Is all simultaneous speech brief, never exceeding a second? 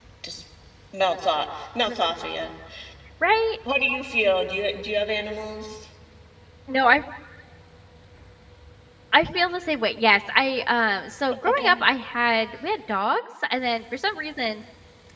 Yes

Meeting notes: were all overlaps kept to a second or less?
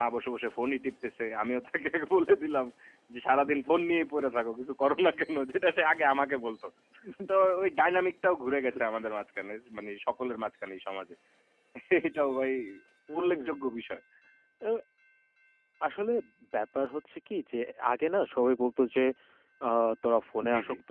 Yes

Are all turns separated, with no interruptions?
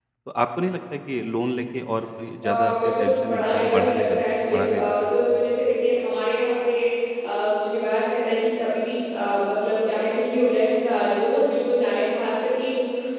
No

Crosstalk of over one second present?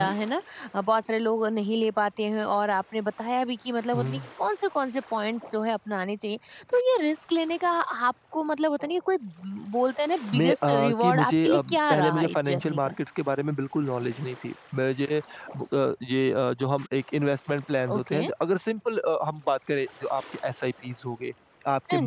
Yes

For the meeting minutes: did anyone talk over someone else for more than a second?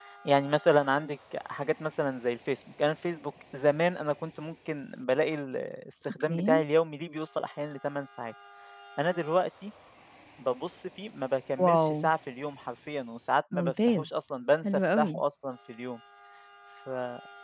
No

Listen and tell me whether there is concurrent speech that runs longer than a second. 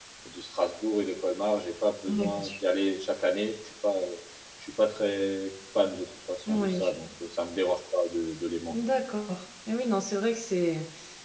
No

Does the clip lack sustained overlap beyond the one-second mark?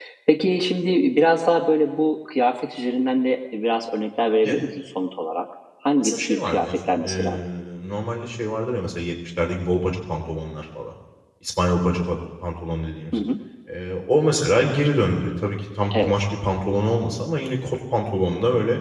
No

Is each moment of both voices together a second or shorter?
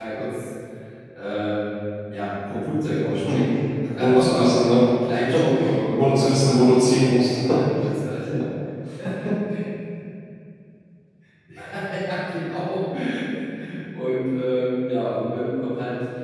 No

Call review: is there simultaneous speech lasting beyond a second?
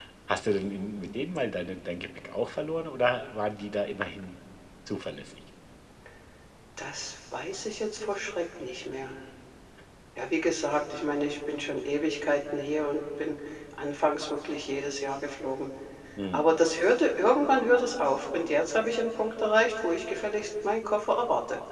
No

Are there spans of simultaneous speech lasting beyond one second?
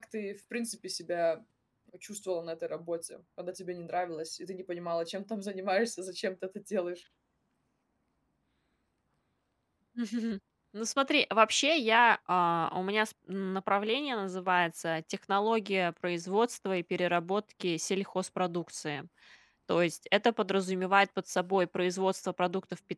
No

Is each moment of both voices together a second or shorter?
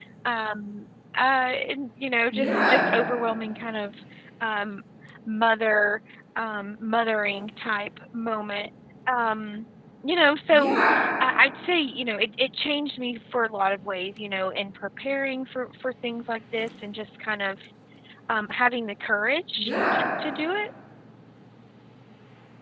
Yes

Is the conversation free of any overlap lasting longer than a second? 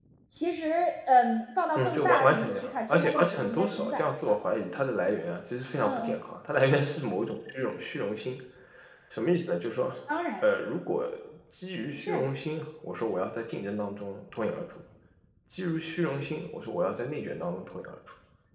No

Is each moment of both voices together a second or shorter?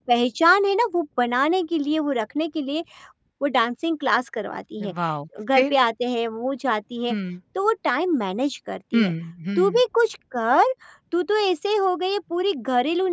Yes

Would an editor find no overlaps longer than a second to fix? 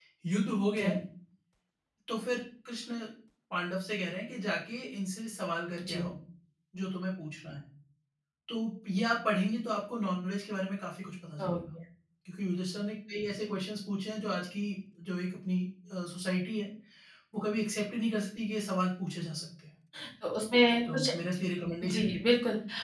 Yes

